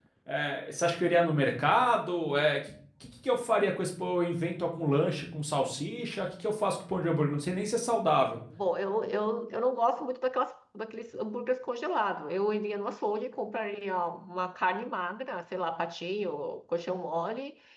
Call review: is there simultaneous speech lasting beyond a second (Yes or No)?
No